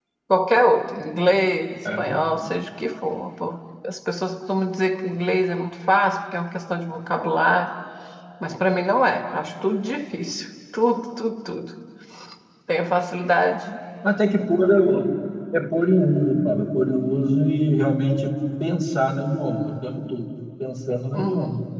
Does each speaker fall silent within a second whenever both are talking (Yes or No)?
Yes